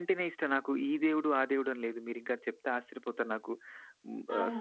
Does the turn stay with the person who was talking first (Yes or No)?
Yes